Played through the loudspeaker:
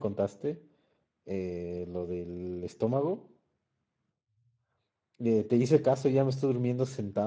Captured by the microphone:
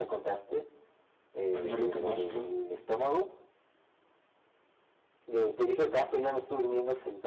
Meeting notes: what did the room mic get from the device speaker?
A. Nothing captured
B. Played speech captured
B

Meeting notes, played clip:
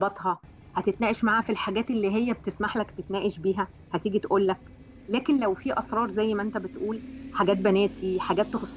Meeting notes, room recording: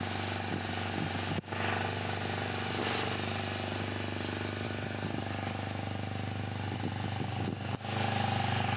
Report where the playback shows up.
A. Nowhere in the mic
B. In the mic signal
A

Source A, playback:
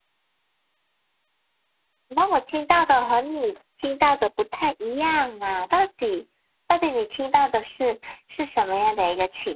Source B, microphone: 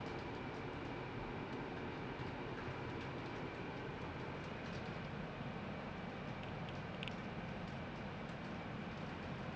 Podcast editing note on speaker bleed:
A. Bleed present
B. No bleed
B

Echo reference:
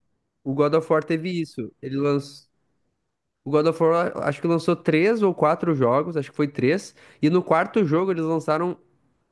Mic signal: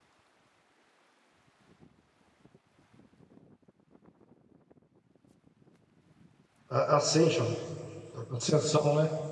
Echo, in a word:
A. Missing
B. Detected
A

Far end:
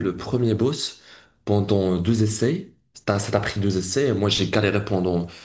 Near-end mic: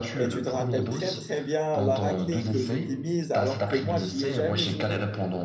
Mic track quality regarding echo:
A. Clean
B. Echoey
B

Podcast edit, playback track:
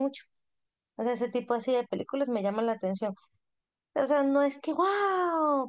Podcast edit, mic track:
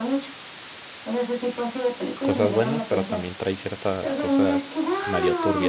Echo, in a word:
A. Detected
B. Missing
A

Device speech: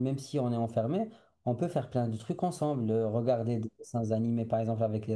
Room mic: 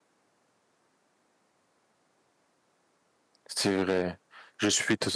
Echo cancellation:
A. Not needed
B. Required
A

